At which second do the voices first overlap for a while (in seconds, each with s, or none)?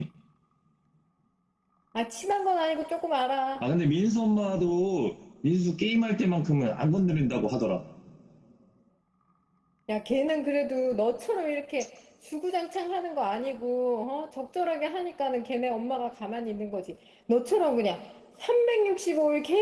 none